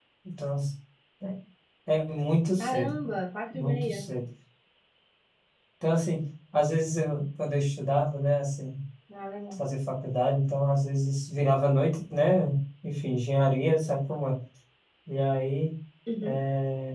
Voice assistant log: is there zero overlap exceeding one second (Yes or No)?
Yes